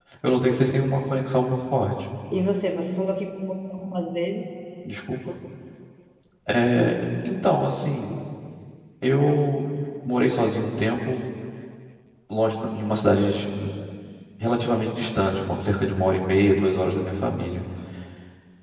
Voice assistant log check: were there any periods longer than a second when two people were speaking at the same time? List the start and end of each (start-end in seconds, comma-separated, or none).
none